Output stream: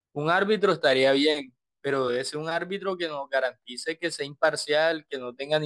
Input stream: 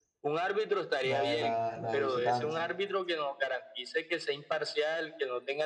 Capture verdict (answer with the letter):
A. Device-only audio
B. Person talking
B